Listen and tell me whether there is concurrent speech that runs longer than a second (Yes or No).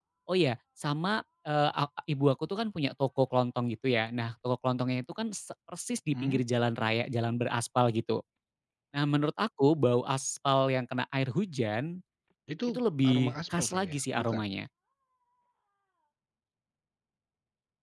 Yes